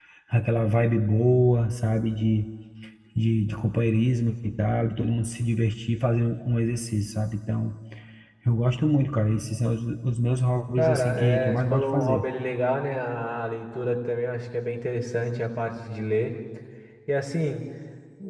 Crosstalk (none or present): present